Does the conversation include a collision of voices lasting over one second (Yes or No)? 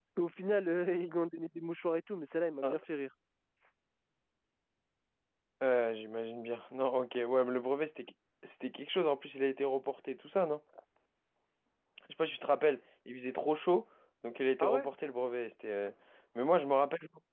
No